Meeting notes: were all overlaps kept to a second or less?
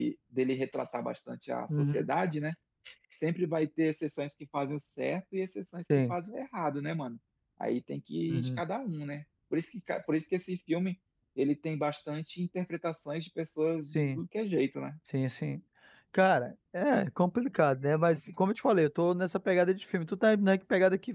Yes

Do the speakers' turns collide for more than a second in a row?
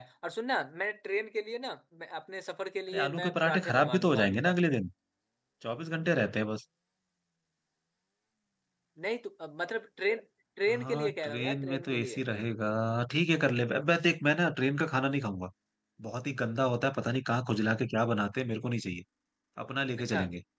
Yes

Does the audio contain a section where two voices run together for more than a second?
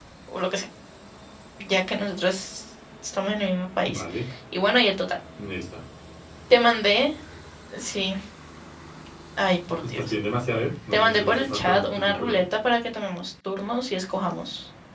Yes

